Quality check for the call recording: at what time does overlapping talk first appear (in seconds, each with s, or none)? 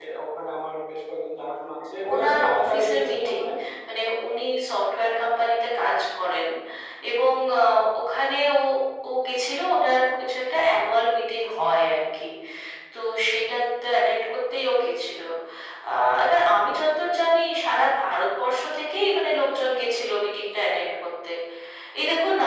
2.1 s